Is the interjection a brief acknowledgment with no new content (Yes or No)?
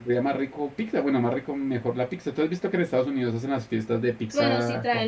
No